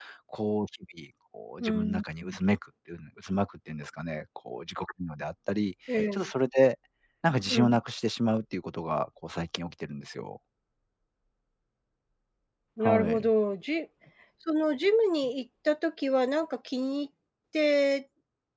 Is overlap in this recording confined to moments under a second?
Yes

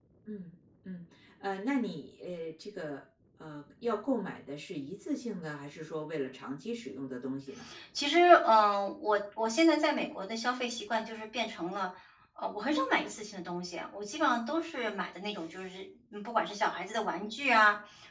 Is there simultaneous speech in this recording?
No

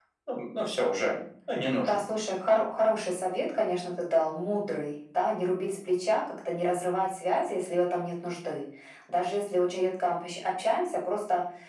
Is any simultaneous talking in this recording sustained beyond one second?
No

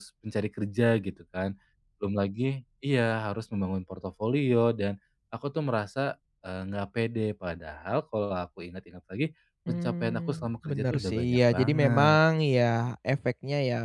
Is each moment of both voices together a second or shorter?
No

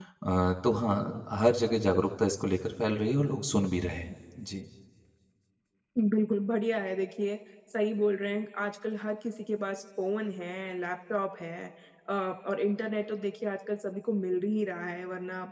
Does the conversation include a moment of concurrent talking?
No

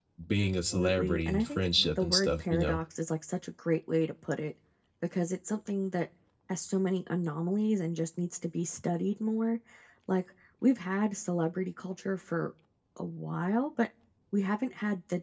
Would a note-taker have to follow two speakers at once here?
Yes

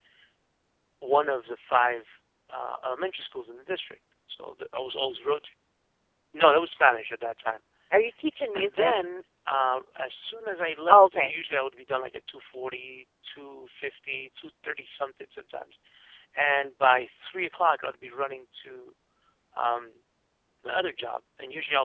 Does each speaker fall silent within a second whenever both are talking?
Yes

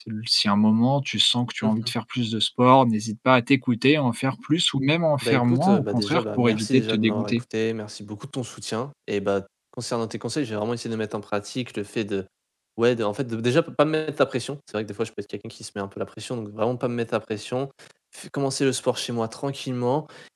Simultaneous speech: Yes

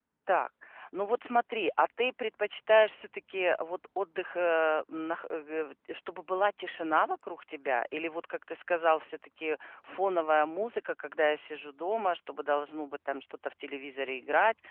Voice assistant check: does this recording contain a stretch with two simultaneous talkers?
No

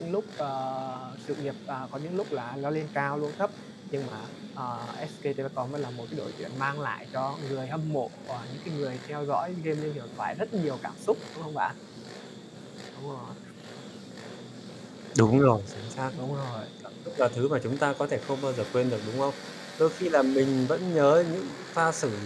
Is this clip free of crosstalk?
Yes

